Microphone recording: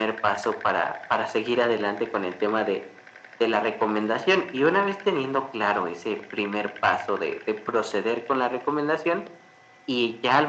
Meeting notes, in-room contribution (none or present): none